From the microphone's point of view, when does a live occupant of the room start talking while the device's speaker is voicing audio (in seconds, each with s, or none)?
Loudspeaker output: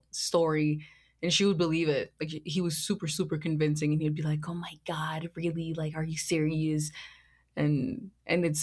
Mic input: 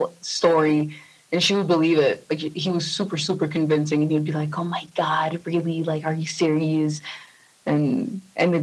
none